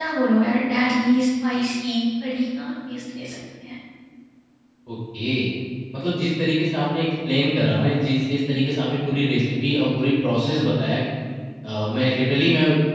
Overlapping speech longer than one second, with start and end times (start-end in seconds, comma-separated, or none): none